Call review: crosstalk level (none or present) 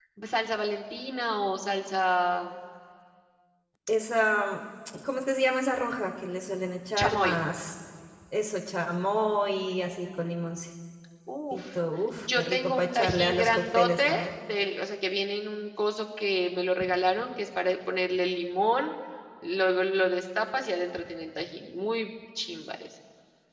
present